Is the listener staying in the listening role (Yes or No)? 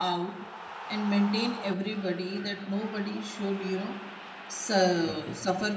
Yes